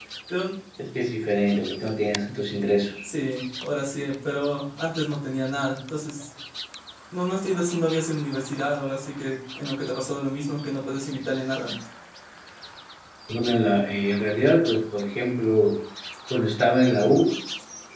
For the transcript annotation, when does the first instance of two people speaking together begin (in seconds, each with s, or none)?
none